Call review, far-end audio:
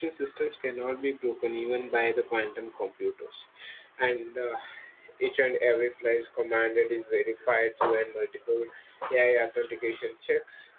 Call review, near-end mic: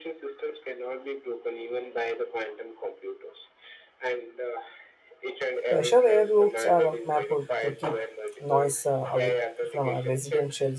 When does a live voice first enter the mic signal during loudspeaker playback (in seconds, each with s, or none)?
5.6 s